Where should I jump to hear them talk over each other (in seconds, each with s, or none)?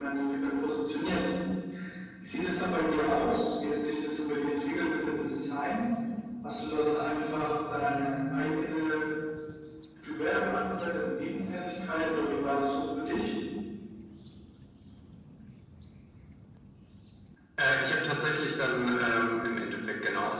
none